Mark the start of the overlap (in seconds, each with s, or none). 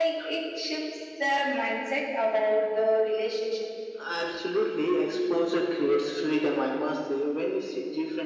none